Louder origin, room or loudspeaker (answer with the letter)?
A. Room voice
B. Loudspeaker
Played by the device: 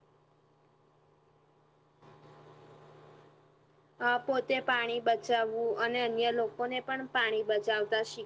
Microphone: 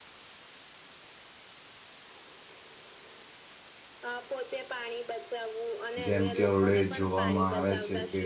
A